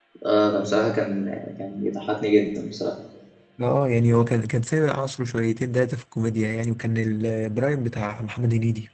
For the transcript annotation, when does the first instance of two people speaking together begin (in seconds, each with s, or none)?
none